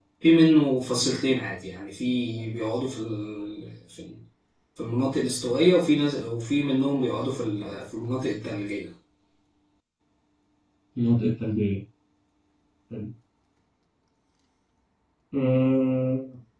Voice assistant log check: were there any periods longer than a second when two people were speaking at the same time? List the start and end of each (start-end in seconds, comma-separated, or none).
none